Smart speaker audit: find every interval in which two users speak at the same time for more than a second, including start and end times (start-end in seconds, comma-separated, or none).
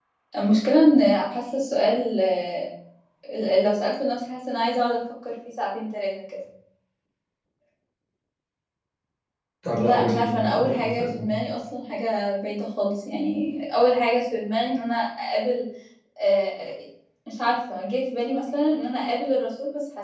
9.7-11.3